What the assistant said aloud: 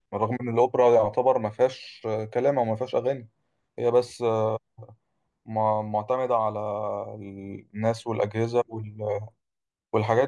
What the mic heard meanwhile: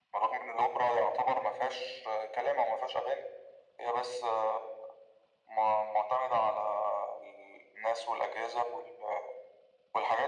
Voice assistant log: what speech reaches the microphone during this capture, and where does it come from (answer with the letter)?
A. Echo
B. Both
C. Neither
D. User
A